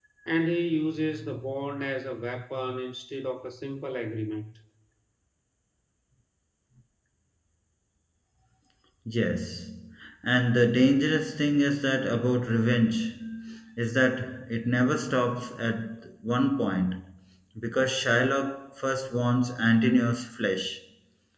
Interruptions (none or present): none